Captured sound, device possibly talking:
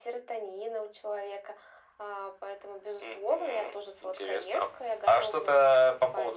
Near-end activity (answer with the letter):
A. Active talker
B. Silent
B